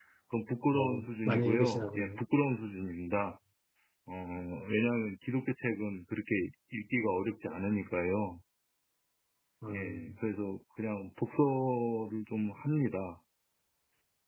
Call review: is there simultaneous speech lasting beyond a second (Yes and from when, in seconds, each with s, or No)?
Yes, from 0.7 s